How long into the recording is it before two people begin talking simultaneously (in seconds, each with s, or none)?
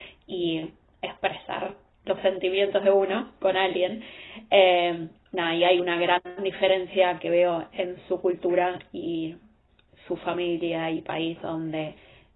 none